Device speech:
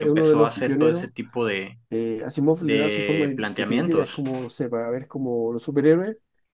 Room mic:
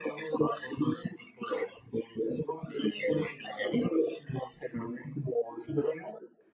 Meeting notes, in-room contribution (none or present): none